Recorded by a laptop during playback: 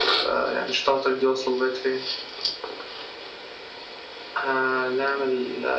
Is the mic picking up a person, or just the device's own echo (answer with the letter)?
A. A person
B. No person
B